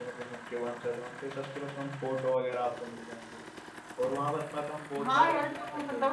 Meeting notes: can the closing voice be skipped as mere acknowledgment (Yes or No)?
No